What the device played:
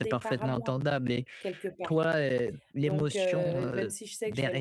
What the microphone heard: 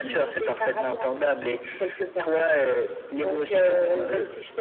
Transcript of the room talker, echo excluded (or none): none